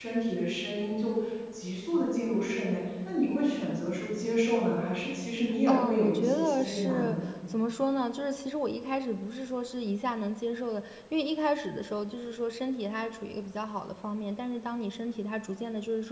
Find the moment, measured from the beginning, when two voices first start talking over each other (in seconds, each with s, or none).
5.7 s